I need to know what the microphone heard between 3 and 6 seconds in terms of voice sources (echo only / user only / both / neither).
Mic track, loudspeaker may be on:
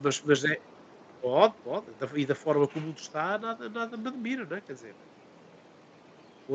user only